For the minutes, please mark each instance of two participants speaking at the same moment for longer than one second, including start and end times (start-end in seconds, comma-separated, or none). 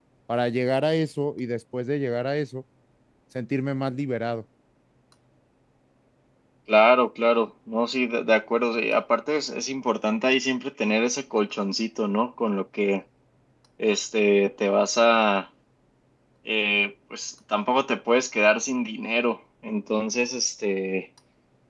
none